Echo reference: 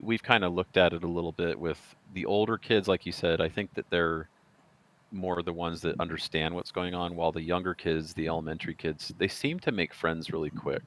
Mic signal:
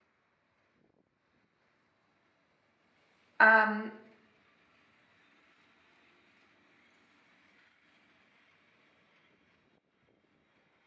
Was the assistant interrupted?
Yes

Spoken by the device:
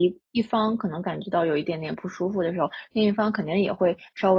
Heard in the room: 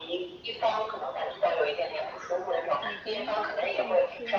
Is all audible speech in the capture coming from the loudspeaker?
No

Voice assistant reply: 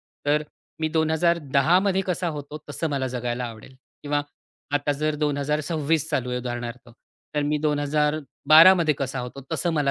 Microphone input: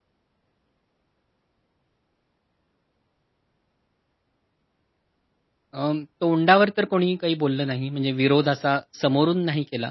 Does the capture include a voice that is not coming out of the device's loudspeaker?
Yes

